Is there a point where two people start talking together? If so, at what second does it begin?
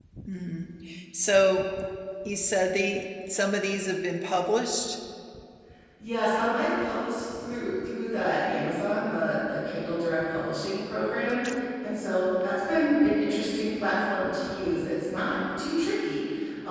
none

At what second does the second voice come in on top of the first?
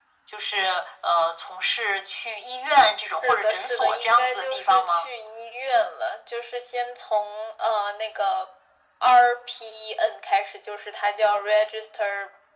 3.0 s

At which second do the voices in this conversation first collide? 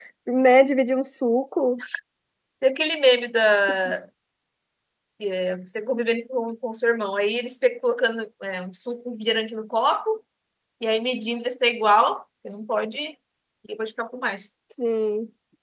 none

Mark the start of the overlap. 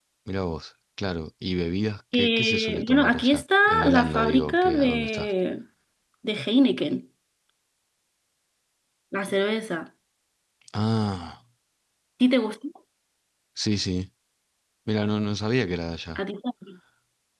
2.1 s

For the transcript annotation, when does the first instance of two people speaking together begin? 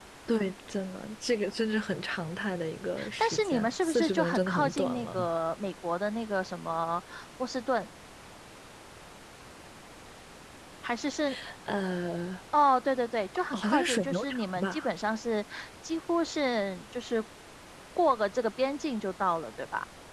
3.2 s

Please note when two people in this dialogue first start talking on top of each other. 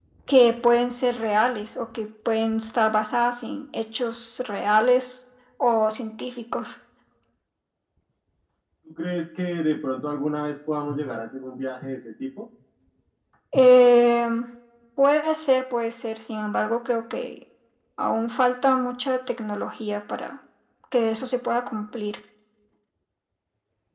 none

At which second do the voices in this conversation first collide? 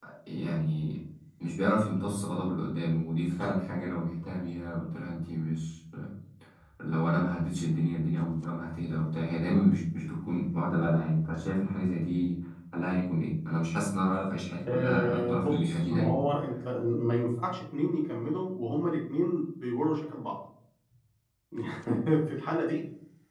14.6 s

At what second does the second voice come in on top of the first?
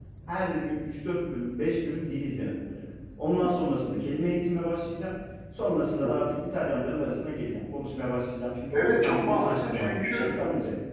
8.7 s

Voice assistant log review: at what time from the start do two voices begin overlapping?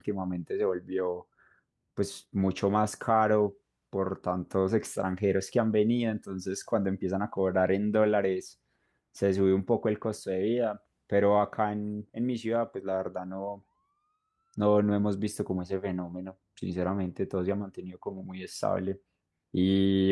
none

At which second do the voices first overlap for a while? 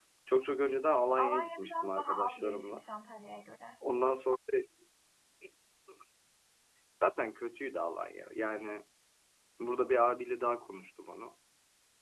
1.2 s

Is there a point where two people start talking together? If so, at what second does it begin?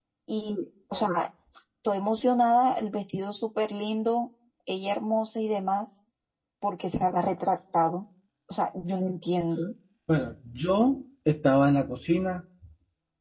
none

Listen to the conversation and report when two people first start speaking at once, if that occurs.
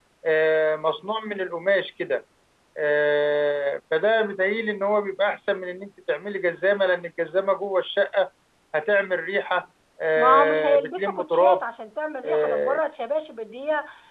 10.2 s

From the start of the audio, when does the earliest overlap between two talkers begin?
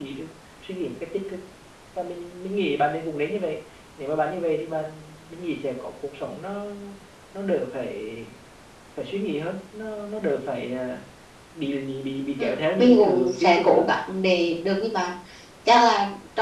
12.4 s

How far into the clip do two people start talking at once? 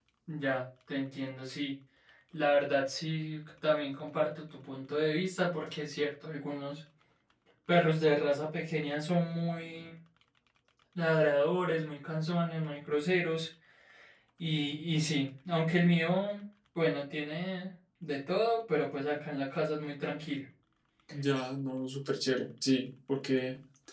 none

